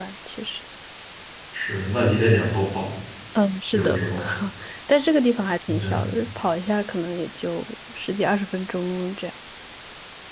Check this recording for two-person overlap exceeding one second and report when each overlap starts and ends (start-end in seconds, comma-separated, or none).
none